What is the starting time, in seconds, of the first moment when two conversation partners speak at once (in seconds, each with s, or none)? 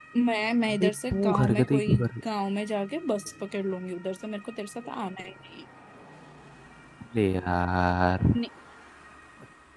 0.7 s